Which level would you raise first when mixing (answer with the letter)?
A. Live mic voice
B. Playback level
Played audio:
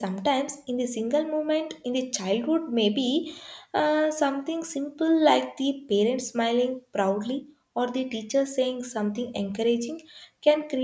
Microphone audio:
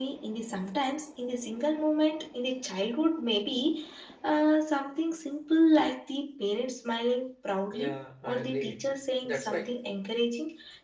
A